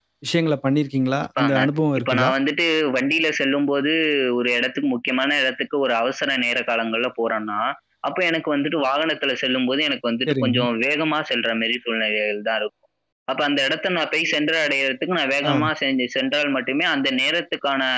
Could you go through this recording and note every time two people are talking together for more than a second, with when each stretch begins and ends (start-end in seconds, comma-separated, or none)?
none